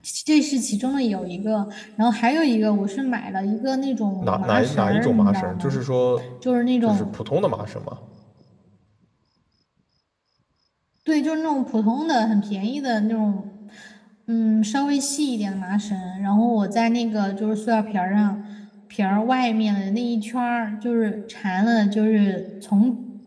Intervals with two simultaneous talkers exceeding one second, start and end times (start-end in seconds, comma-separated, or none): 4.2-5.8